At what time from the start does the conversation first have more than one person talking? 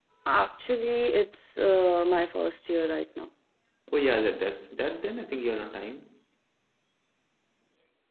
none

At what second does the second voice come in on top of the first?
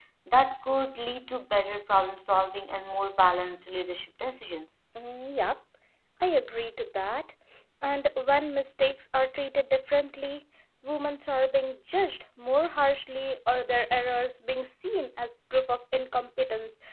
none

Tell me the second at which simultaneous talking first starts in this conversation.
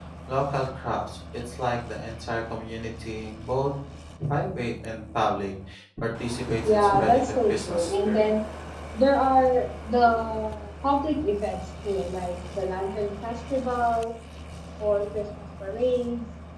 6.6 s

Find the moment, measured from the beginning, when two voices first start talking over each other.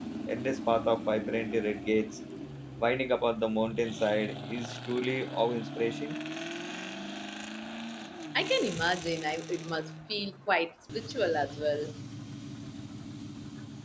none

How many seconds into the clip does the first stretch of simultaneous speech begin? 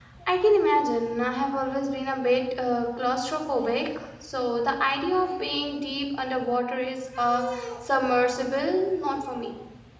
none

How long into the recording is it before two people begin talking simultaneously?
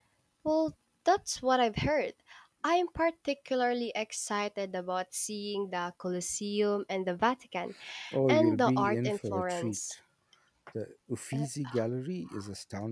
8.3 s

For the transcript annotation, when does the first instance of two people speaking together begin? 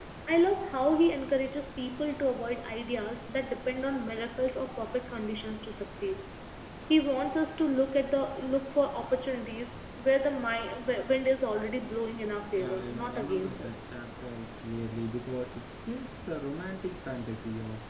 12.6 s

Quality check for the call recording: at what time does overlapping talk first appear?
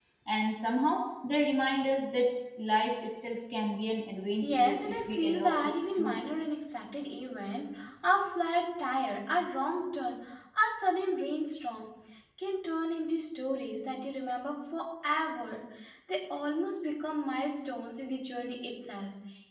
4.4 s

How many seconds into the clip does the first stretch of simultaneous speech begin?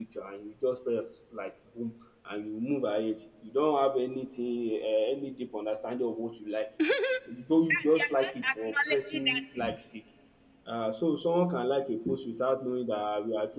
7.7 s

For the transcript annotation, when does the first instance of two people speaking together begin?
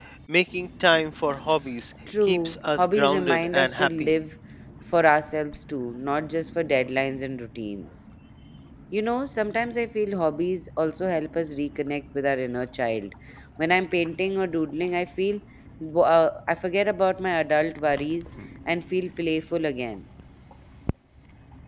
2.1 s

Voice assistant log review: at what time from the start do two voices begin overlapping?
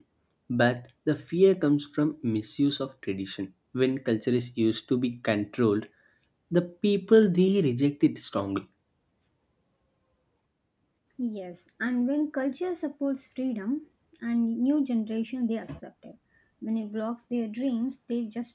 none

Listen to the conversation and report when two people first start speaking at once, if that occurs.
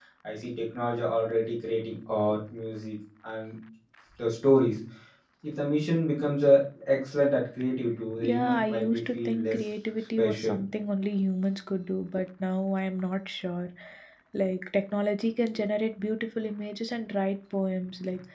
8.2 s

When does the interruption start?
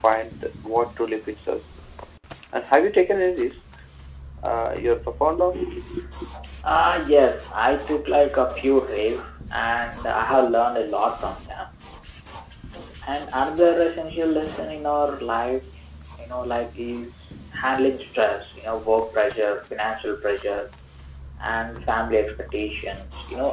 none

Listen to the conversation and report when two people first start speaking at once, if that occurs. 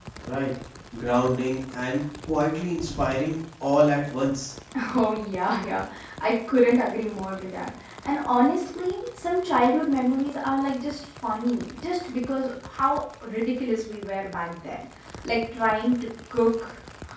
none

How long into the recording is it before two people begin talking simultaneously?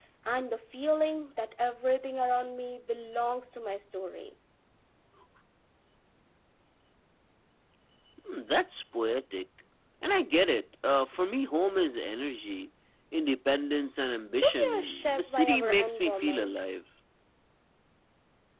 14.3 s

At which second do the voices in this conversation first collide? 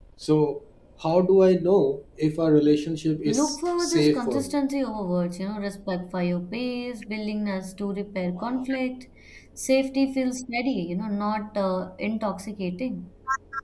3.3 s

